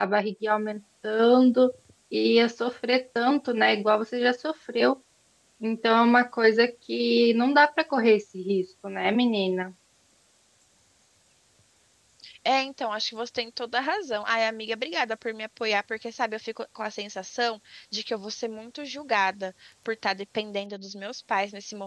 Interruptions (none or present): none